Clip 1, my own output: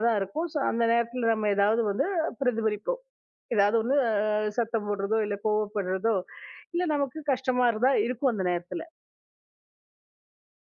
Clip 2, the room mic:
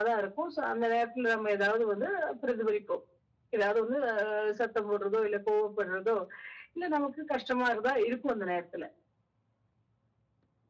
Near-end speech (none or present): none